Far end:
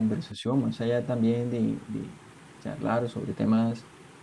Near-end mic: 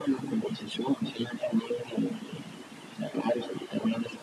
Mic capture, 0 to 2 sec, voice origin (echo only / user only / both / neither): echo only